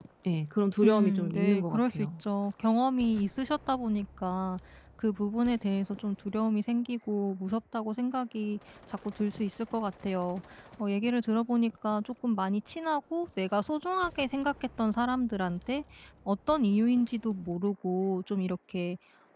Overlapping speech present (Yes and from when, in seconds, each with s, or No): Yes, from 0.8 s